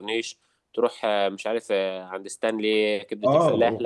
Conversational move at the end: taking over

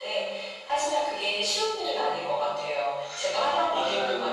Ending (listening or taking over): listening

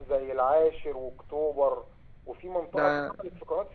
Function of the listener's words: listening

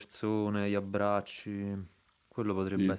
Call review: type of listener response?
listening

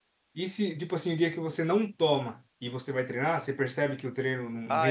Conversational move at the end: taking over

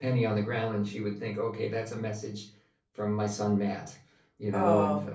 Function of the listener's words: taking over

